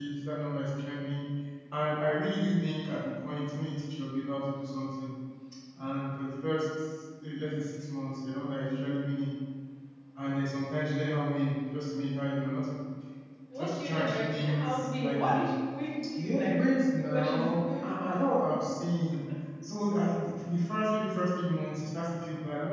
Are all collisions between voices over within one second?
No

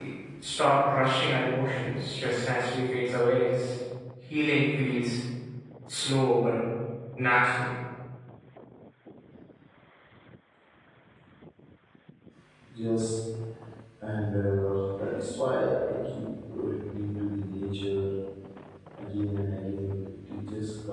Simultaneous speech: No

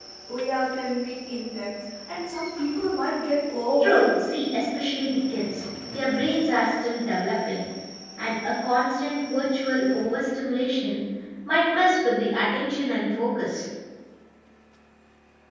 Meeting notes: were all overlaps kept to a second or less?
Yes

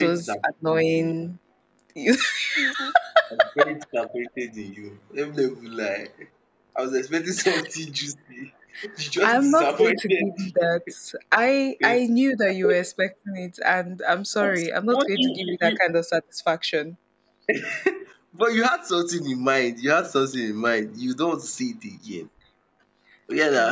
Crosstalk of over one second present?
Yes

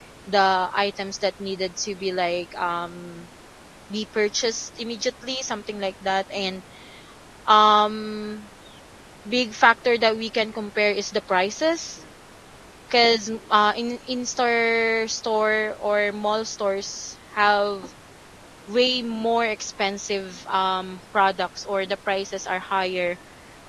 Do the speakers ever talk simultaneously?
No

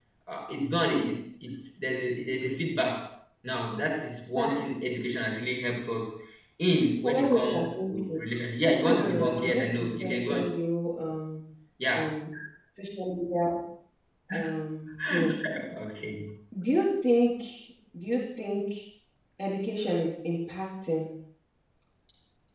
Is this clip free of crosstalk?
No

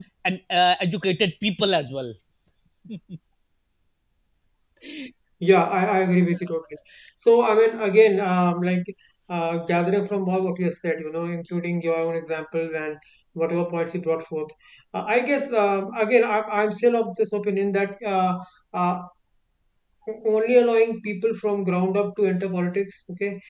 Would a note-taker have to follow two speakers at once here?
No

